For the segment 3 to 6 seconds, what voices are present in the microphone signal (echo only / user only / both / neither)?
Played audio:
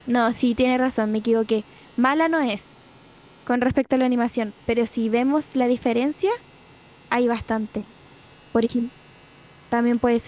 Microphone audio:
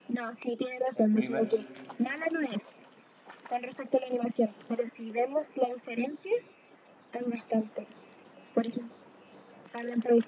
echo only